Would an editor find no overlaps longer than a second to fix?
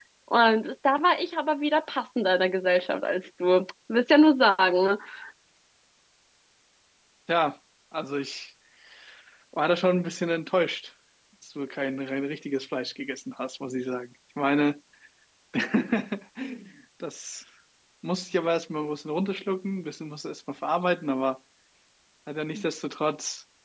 Yes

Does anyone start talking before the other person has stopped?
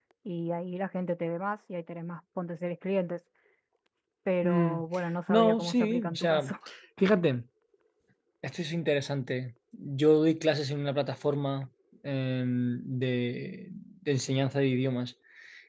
Yes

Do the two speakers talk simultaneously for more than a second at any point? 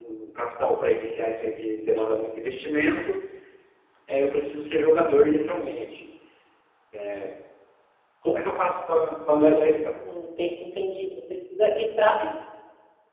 No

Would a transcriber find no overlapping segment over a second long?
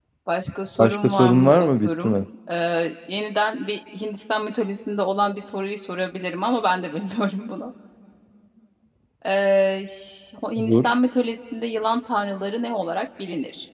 No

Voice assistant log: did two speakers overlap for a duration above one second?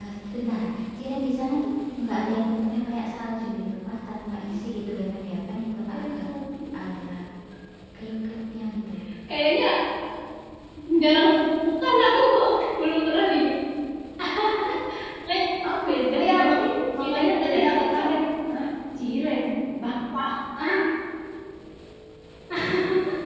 Yes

